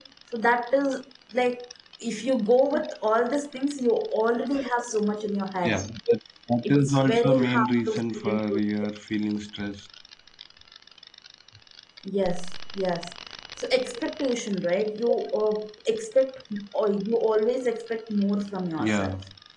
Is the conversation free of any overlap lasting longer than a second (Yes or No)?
No